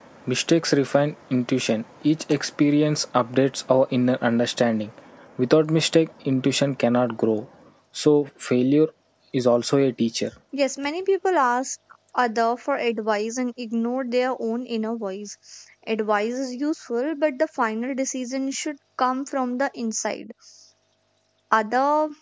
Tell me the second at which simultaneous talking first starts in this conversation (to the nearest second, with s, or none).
none